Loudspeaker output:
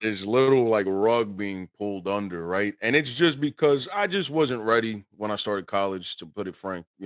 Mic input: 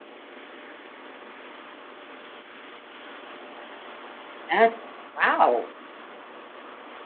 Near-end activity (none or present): present